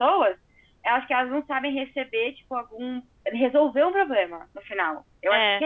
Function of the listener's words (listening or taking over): taking over